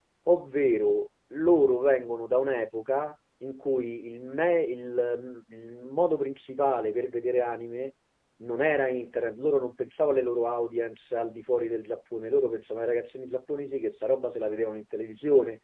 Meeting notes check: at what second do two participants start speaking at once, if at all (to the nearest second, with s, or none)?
none